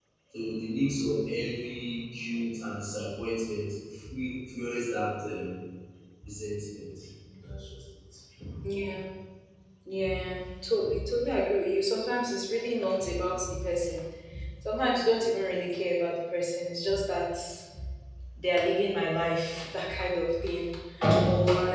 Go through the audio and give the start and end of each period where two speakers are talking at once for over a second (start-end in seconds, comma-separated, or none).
none